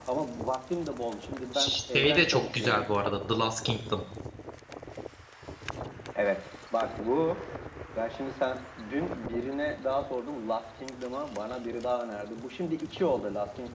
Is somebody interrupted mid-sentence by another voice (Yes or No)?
Yes